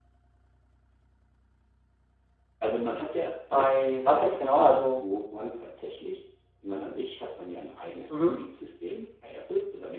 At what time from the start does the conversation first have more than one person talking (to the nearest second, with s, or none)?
4 s